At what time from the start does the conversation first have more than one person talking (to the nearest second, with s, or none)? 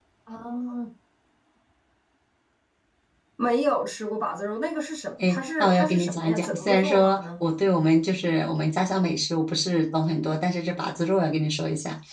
5 s